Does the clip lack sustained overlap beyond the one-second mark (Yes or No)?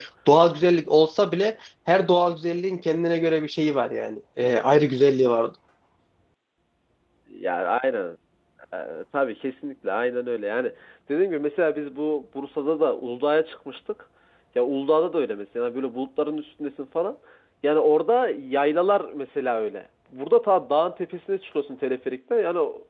Yes